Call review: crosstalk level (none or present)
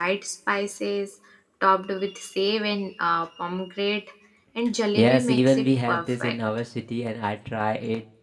present